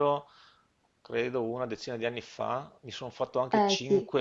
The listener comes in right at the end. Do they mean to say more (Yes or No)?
No